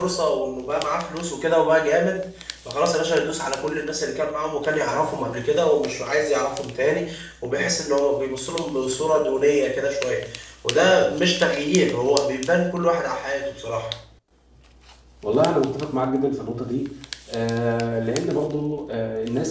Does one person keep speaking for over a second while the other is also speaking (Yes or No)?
No